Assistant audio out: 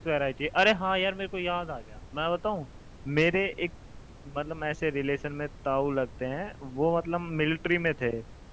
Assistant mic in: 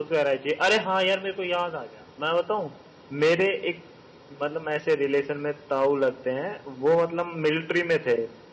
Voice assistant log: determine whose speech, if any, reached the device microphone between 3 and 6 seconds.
echo only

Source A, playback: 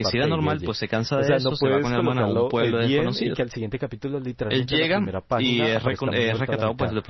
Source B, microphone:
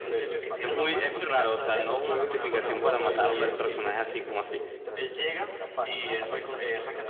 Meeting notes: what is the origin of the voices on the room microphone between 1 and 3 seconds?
both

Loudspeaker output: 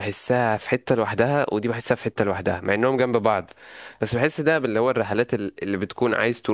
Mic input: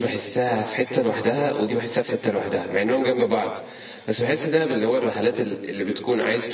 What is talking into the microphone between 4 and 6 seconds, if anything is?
echo only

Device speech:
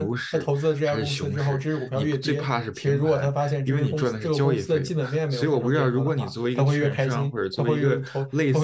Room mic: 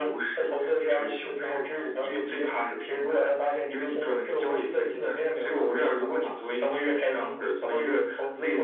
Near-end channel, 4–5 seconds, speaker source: echo only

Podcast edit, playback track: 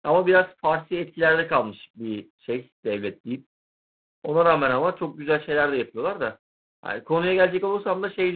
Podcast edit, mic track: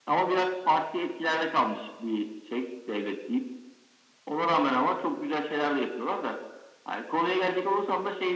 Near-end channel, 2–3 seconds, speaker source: echo only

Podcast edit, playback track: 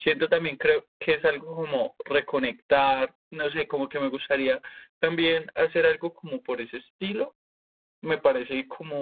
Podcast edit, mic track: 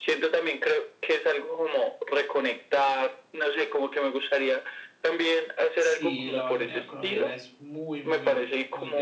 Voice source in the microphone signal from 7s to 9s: both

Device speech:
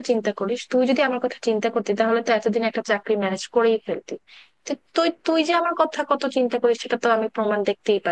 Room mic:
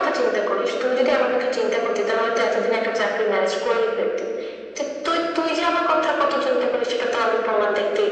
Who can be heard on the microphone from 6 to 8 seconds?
echo only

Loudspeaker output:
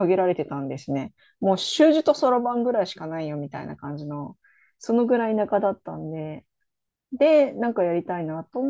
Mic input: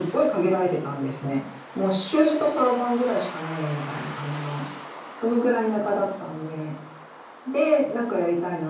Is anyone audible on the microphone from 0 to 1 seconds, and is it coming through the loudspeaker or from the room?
echo only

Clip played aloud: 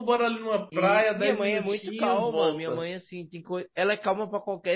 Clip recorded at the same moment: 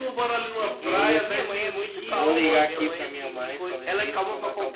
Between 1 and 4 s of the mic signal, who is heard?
both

